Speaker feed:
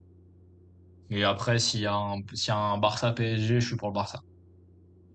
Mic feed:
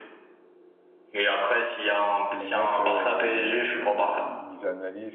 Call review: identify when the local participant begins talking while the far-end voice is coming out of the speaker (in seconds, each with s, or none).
2.3 s